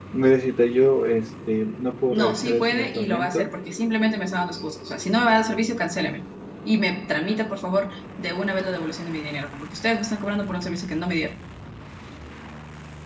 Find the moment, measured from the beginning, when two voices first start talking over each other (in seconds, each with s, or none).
2.1 s